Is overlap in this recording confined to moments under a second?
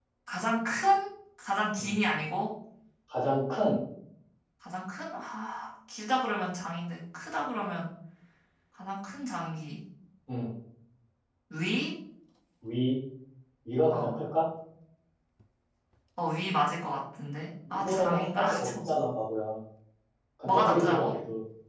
No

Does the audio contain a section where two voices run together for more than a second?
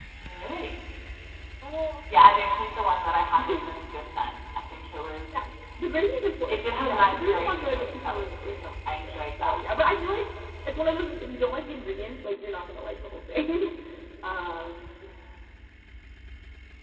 Yes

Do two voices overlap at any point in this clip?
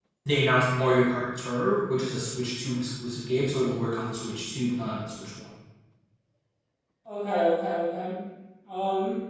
No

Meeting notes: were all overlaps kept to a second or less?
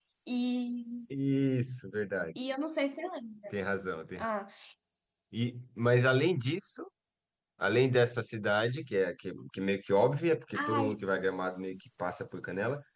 Yes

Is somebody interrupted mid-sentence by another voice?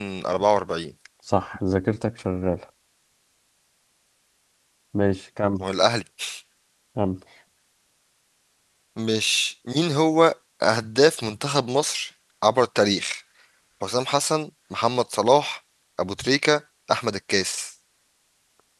No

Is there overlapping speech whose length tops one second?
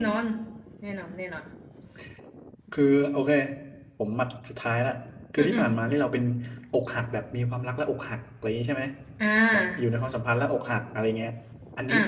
No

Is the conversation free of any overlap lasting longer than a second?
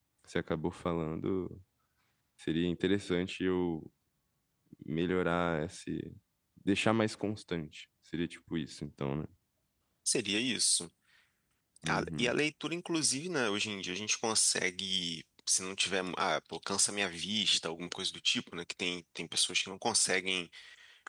Yes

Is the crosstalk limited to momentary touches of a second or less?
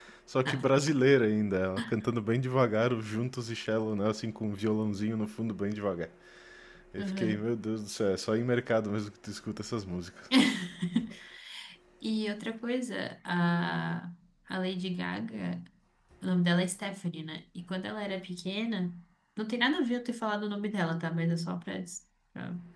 Yes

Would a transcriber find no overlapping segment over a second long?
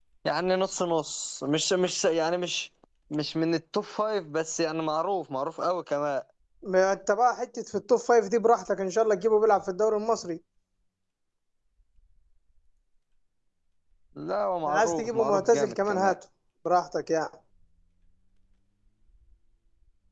No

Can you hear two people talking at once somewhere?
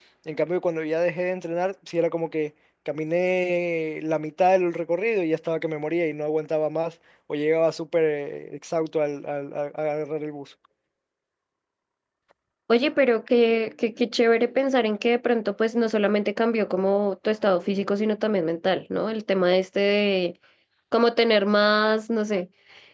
No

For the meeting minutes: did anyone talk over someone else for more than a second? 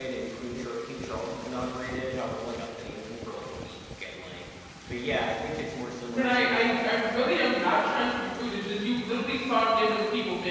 Yes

